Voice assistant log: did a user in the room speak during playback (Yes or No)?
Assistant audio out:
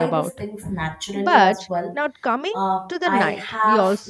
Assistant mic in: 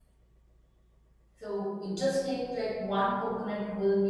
Yes